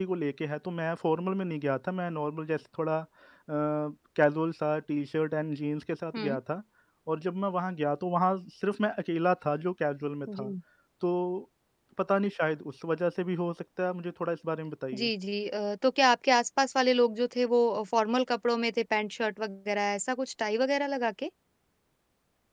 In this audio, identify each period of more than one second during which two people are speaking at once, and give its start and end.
none

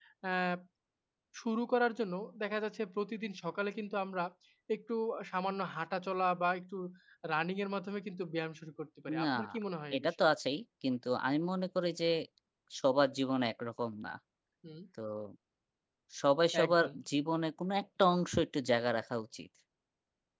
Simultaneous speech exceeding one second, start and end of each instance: none

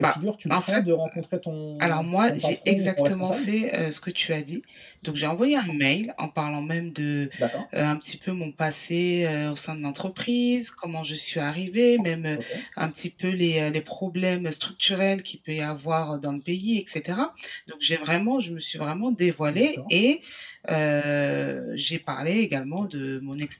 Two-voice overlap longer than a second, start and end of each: 1.8-3.5

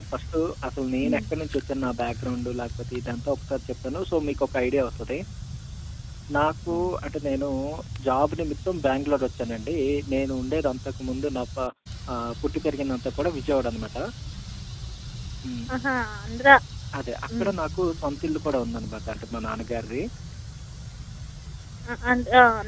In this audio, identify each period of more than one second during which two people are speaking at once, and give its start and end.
none

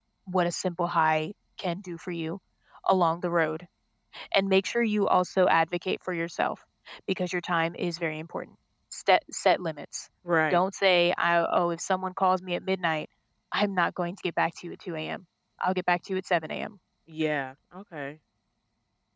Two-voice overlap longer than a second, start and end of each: none

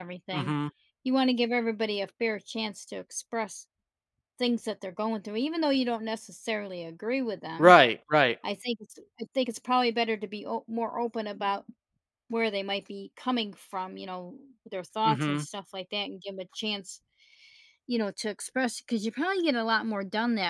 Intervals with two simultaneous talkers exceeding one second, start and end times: none

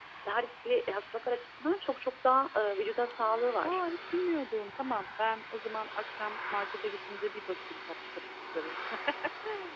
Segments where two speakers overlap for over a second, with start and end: none

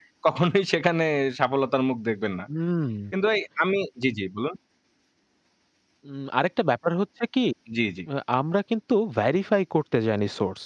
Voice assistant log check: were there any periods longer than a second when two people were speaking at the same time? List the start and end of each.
none

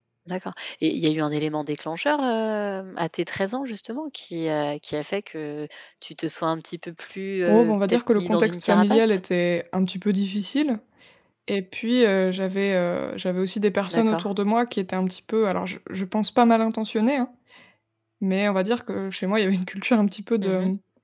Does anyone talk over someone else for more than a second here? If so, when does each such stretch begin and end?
7.5-9.2

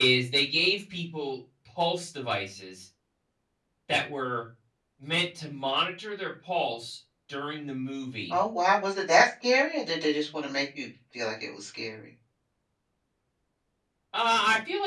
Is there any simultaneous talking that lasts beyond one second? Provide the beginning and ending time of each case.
none

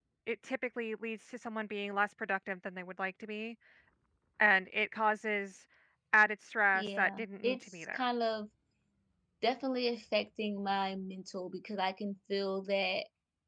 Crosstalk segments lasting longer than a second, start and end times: 6.8-8.0

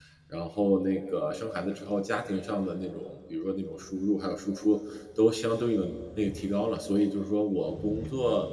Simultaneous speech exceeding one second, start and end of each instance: none

